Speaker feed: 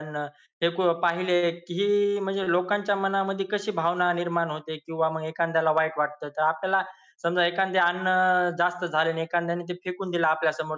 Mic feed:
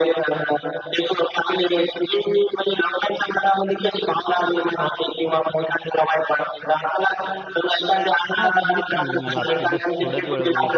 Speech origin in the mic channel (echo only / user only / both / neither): both